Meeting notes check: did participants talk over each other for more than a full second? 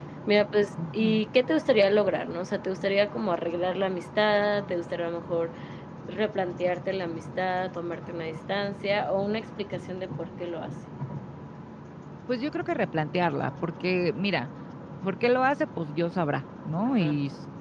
No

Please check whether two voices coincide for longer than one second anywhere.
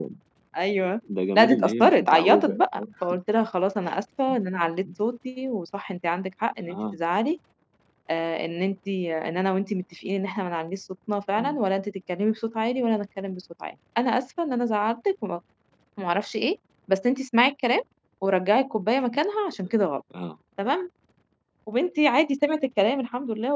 Yes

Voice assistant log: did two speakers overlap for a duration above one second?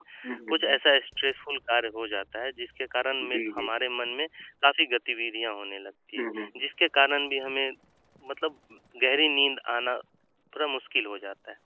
No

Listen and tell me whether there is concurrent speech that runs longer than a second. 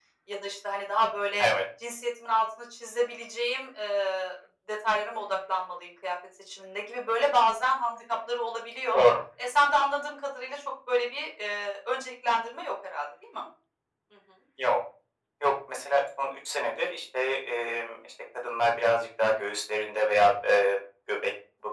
No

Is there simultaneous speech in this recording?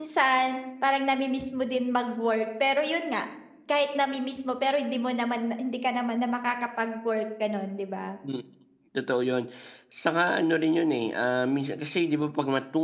No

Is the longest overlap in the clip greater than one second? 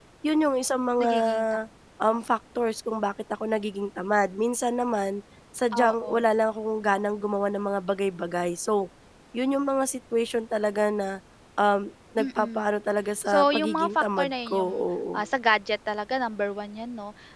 Yes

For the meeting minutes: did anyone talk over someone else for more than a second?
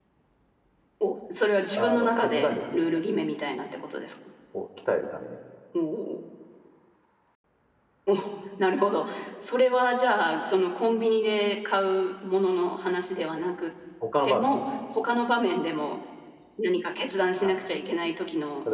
Yes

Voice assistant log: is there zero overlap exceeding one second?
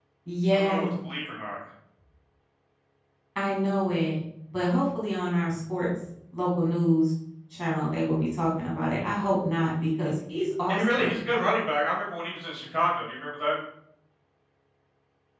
Yes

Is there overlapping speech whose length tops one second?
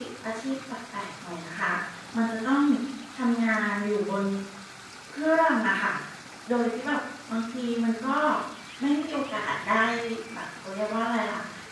No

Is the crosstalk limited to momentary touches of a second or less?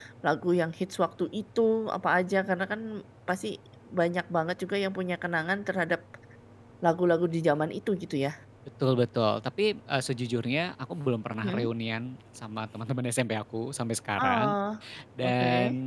Yes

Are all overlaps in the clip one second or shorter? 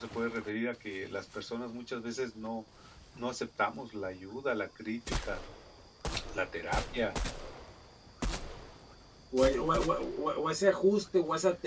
Yes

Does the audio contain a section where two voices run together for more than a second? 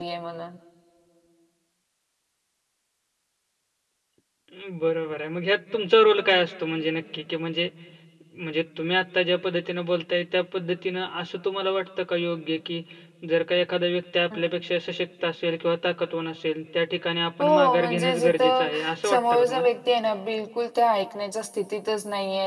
Yes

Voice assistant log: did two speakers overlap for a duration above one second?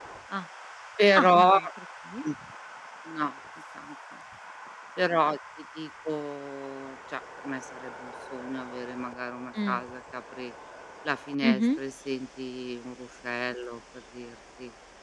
No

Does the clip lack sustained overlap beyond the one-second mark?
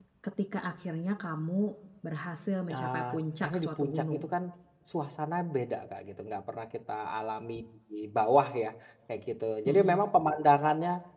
No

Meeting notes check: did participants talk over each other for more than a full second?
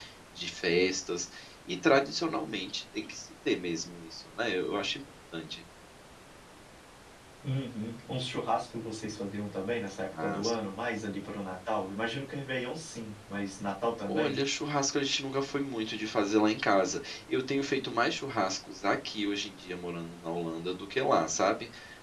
No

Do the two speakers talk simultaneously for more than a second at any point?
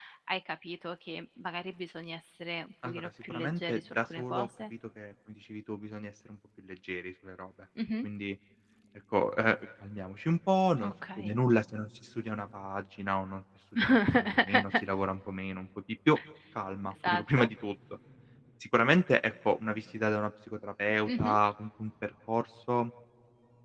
Yes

